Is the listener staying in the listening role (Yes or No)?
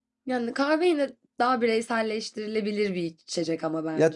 No